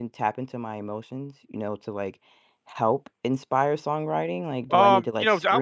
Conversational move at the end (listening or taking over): taking over